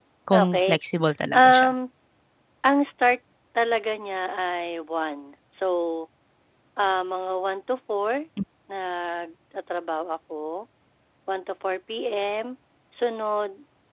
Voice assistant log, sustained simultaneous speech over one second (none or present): none